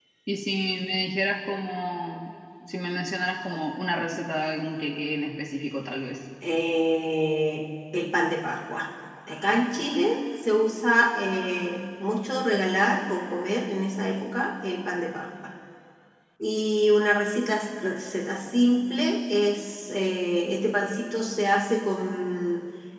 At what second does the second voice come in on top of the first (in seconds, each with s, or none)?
none